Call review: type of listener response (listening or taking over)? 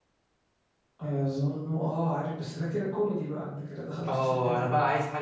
taking over